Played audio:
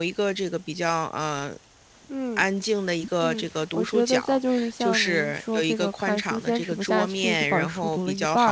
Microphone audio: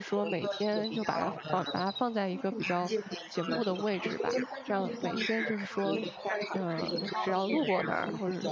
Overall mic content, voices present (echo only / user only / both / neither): both